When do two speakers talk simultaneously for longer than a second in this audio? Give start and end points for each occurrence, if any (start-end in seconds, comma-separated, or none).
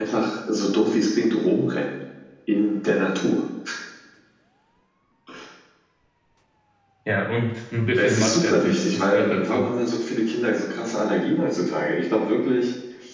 8.0-9.7